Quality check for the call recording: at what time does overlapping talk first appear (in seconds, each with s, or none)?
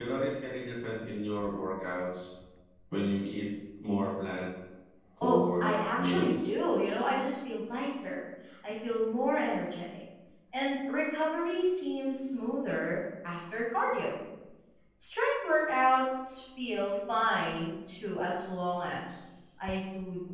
5.2 s